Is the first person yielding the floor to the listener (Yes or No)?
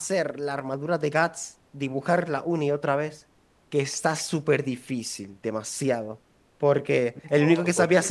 No